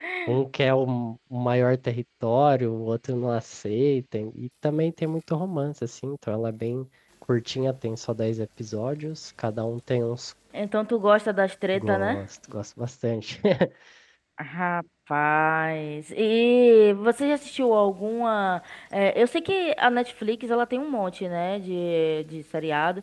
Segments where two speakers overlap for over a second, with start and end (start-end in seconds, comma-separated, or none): none